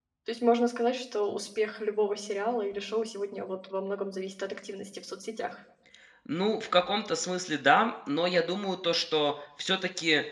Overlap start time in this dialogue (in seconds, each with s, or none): none